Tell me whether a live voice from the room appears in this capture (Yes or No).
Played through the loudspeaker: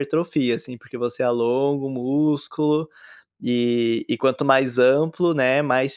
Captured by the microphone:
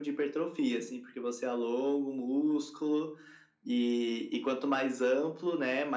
No